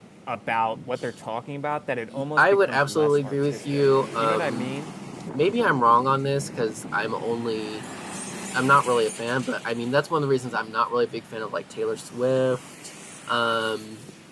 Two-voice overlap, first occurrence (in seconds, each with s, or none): 2.4 s